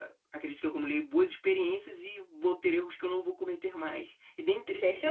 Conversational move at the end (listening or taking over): taking over